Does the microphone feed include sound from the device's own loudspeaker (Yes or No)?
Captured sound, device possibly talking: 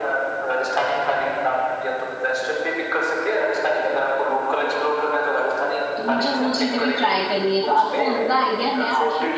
Yes